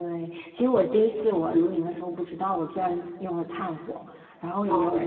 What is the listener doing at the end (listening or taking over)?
listening